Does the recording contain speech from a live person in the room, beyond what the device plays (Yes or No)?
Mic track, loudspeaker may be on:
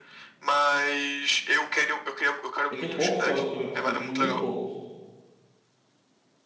Yes